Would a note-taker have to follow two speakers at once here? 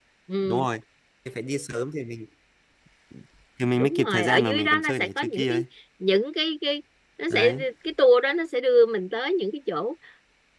Yes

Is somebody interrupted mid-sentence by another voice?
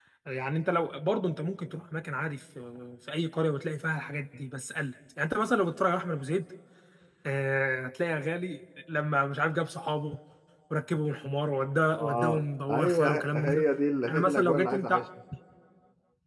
Yes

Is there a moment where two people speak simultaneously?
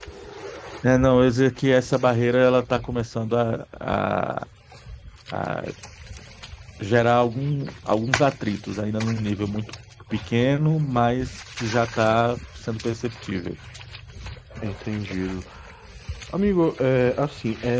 No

